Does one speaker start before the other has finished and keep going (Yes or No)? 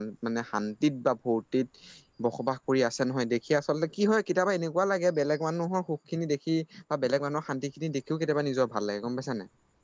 No